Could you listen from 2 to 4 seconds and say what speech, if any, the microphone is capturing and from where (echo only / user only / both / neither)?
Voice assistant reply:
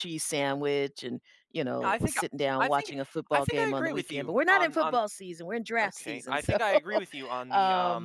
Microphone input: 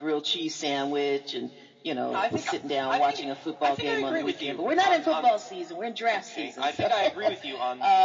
echo only